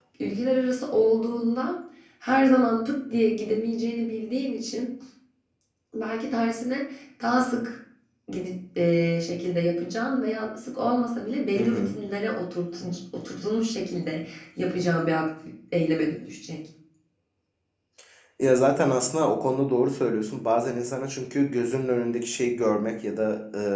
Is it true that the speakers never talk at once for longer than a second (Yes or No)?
Yes